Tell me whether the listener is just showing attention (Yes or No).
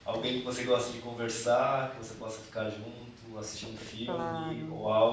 Yes